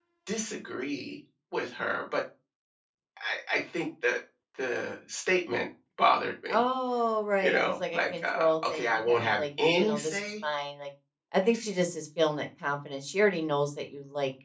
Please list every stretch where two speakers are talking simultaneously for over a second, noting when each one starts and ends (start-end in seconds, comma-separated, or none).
7.4-10.2